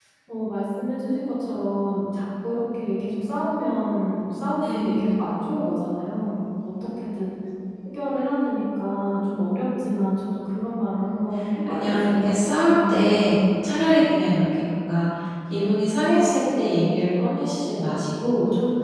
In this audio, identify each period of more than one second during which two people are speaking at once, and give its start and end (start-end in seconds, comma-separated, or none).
11.7-13.2